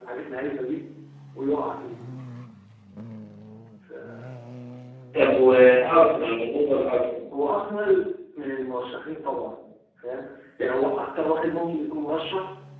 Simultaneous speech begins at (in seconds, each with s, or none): none